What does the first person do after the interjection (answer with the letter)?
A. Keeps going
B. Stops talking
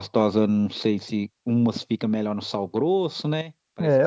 B